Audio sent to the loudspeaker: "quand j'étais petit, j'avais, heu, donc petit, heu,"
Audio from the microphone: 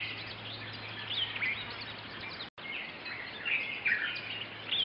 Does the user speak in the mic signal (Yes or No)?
No